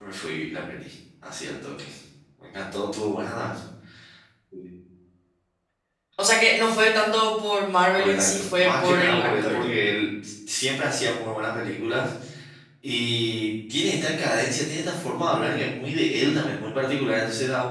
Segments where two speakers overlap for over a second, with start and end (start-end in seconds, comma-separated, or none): 8.0-9.6